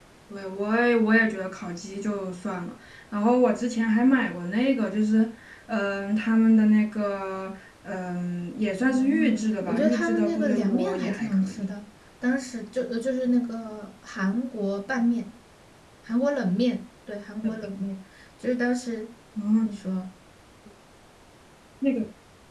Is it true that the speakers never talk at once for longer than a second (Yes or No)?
No